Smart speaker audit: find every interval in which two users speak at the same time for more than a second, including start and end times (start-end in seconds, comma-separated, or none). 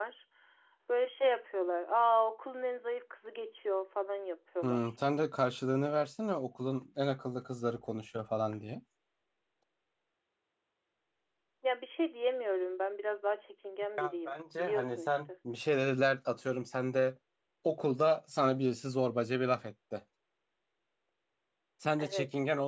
14.0-15.2